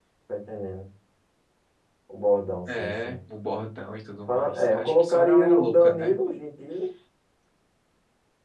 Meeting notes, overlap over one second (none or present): present